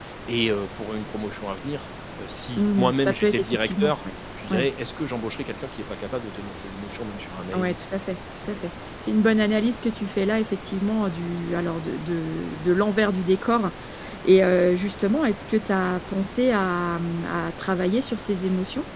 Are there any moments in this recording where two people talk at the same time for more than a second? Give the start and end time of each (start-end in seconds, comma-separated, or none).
2.6-3.9